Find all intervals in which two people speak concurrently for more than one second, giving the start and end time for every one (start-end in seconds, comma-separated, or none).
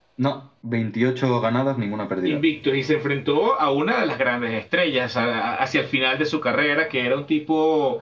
none